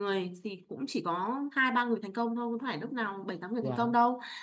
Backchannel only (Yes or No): Yes